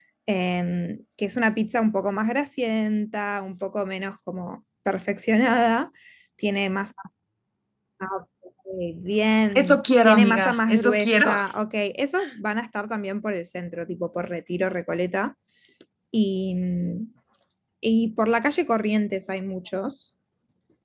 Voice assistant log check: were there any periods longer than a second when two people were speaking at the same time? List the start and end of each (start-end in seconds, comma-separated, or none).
9.6-11.4